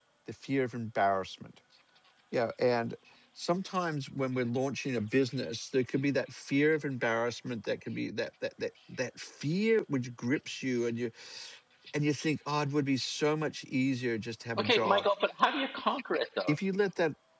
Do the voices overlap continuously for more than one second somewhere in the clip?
No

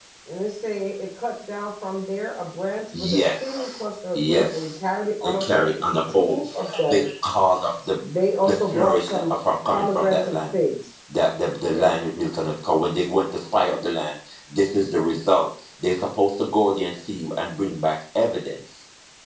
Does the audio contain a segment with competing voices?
Yes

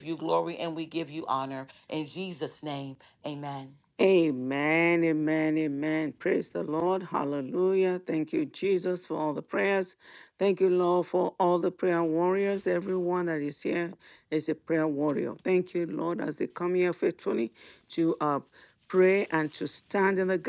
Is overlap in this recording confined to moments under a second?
Yes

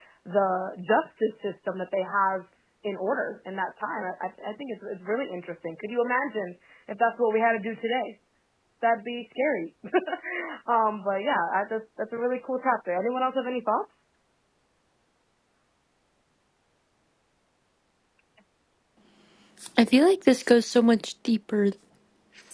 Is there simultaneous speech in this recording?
No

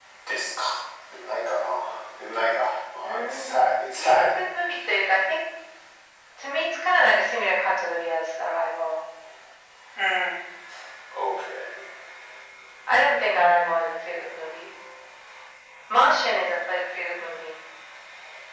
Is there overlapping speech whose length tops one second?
No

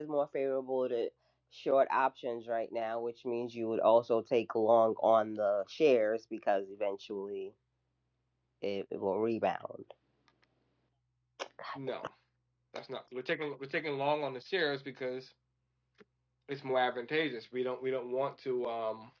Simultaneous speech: No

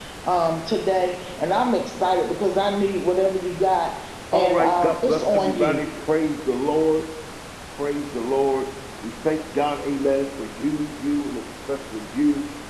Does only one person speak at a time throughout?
No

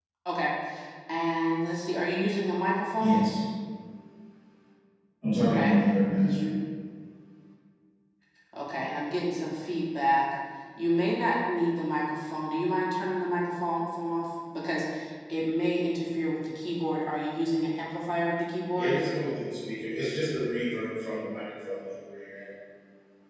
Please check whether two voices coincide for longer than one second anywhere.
No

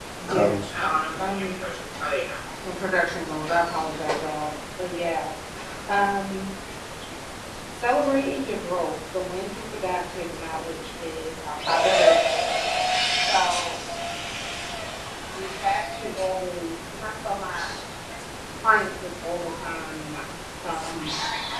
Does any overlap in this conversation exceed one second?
Yes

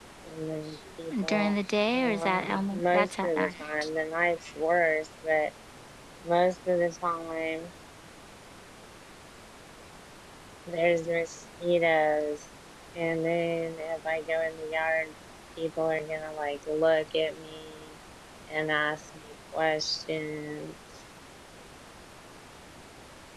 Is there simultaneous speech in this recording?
Yes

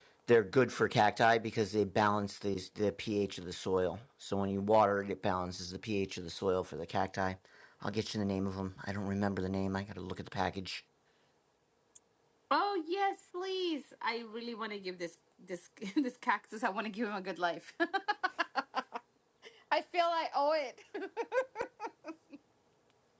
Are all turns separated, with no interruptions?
Yes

